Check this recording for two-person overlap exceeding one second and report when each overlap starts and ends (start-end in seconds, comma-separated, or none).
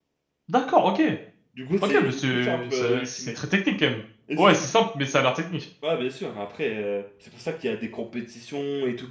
1.8-3.4